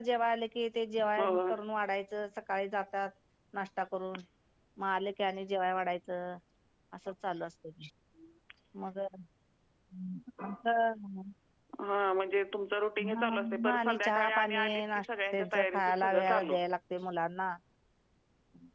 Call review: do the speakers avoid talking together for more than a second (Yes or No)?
No